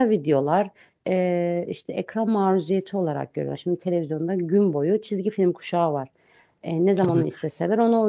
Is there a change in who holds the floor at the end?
No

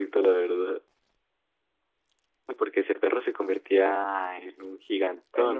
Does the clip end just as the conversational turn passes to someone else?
Yes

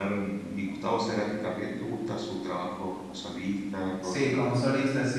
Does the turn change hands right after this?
Yes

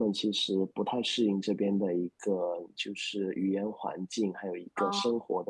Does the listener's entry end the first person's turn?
No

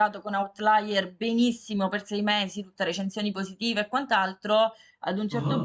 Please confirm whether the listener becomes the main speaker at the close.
No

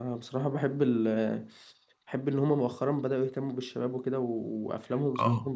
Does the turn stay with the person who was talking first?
No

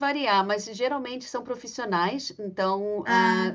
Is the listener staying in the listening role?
Yes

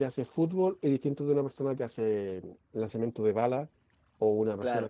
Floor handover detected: Yes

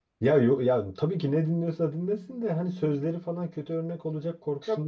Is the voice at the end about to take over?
No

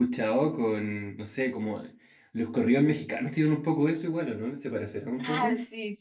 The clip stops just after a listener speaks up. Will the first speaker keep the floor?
No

